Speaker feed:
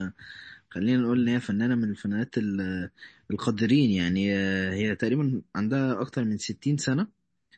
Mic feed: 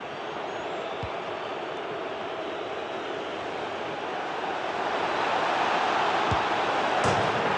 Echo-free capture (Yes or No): Yes